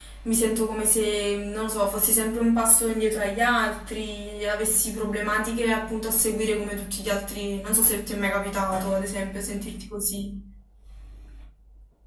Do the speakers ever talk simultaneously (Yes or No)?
No